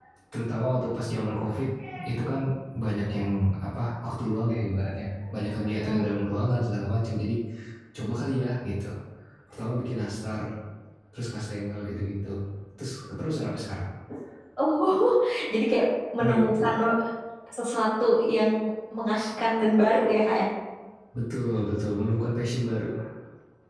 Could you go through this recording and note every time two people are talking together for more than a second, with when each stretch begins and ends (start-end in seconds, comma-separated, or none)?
none